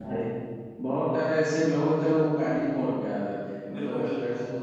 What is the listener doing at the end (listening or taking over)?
taking over